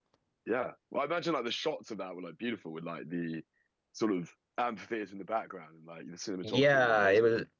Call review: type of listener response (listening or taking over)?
taking over